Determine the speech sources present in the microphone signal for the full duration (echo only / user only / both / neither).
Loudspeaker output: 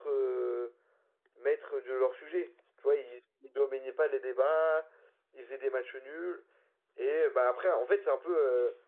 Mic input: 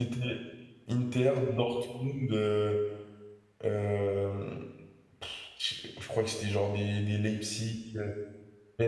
user only